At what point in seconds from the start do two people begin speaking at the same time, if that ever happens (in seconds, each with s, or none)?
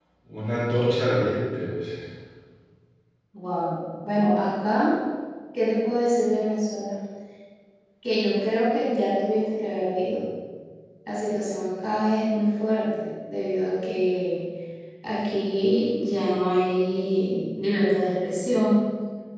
none